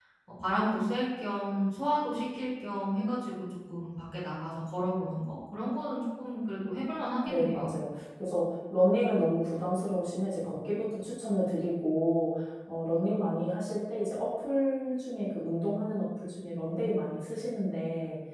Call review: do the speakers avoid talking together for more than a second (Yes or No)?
Yes